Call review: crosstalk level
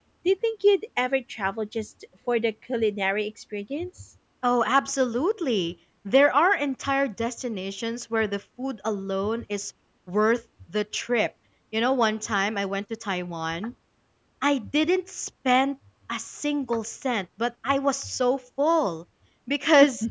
none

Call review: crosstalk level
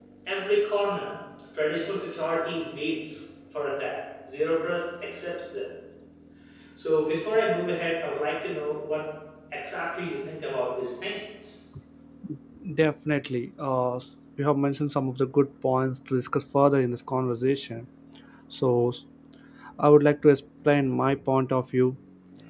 none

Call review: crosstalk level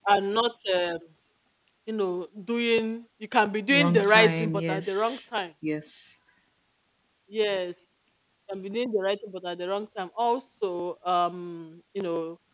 present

